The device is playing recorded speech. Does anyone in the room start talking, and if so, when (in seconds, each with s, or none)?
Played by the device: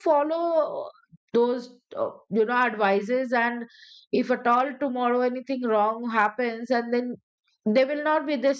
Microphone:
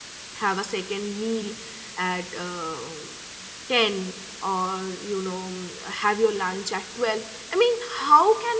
0.4 s